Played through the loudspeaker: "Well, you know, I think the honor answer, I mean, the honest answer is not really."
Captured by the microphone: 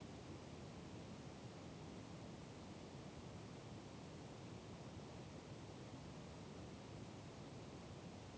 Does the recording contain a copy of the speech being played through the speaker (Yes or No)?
No